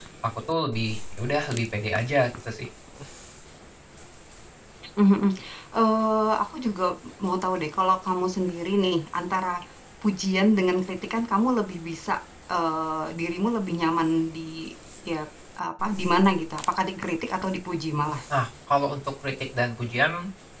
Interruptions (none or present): none